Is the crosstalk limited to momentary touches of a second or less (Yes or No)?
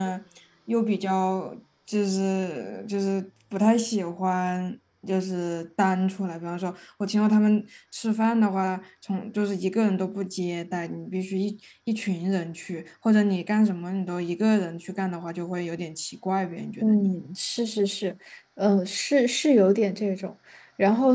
Yes